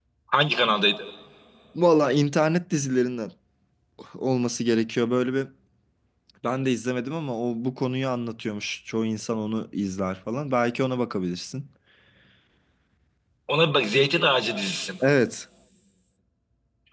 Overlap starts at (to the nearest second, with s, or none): none